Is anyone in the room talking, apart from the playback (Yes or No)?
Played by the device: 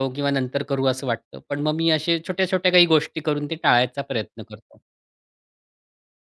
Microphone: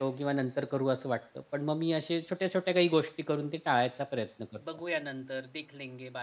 Yes